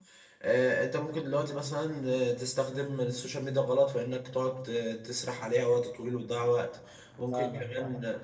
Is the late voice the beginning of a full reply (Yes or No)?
No